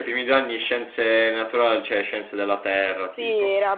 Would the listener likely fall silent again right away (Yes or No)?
No